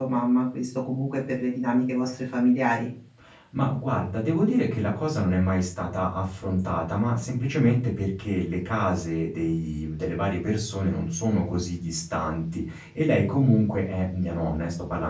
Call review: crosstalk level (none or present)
none